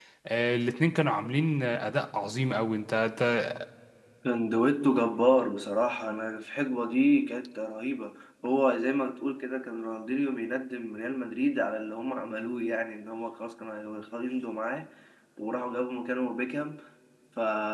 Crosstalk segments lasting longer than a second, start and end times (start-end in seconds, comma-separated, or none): none